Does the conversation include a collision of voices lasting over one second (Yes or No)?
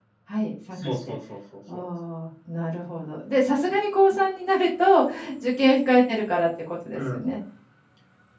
No